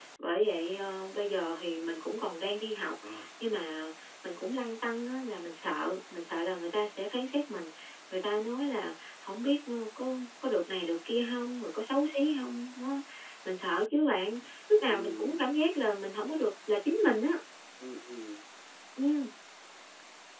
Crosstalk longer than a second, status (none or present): none